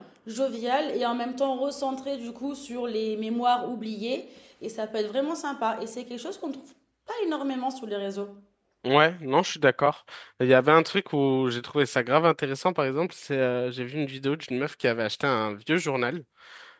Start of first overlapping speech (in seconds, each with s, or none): none